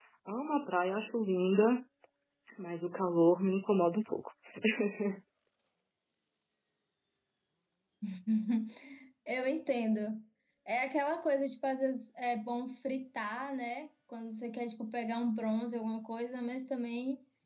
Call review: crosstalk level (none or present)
none